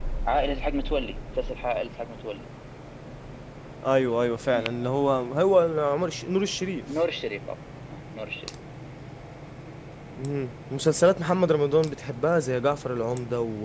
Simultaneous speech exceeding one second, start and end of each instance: none

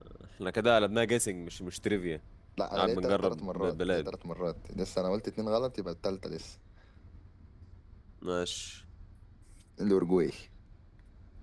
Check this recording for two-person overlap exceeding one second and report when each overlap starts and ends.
2.8-4.1

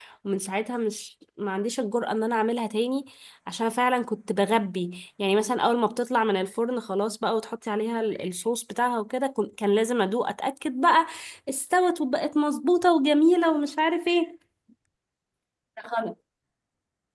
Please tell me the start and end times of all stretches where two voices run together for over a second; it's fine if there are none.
none

